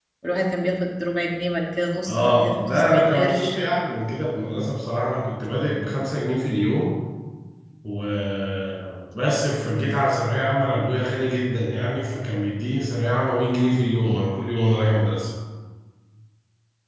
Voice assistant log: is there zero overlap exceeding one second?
No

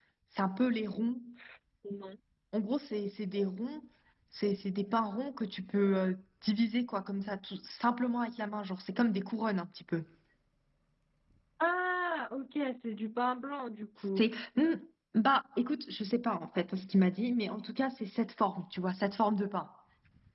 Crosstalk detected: No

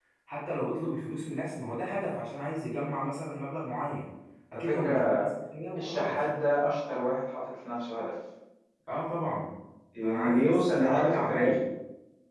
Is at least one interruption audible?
Yes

